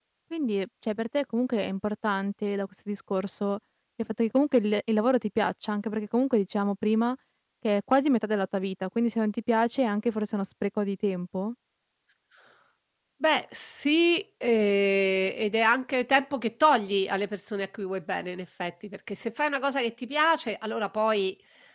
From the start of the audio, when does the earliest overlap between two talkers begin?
none

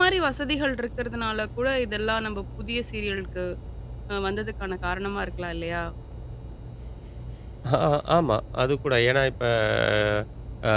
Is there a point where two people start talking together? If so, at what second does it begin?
none

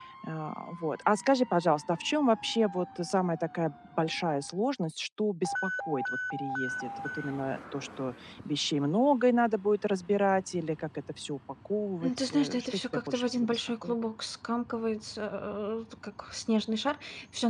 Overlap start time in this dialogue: 12 s

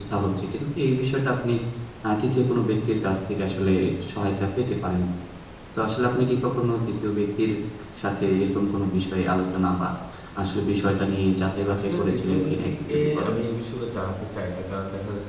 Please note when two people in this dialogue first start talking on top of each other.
12 s

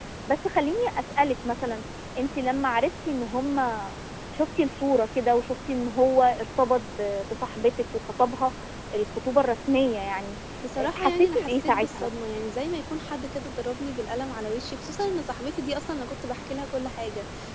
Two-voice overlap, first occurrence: 11 s

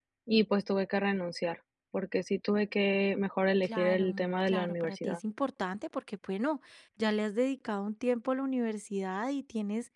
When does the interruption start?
4 s

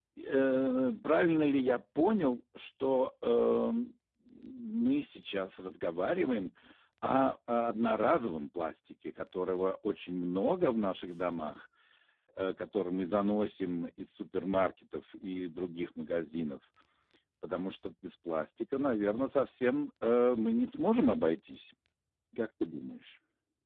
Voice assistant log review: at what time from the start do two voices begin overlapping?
none

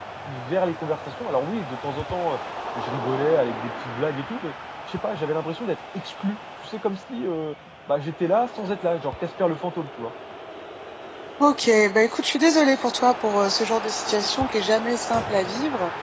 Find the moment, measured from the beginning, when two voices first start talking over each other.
none

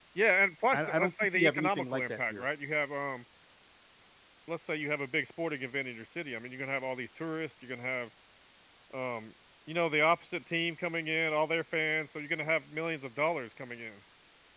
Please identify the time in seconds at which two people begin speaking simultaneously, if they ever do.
1 s

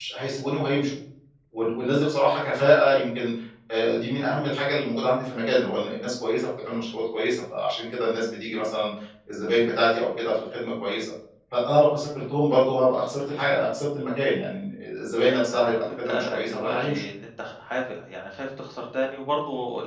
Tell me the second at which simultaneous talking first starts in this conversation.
15 s

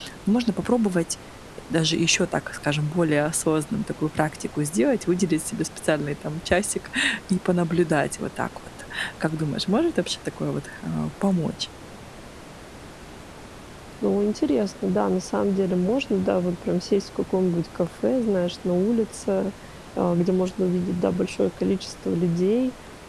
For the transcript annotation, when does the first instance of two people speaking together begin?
none

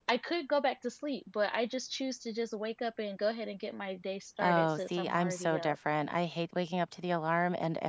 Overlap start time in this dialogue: 4 s

